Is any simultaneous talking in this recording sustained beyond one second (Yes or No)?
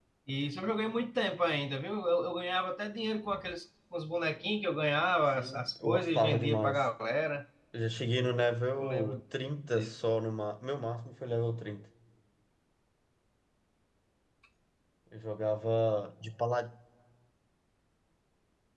Yes